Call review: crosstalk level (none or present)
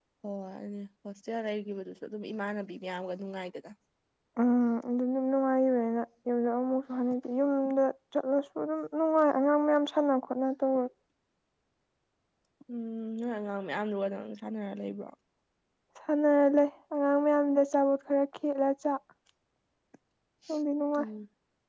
none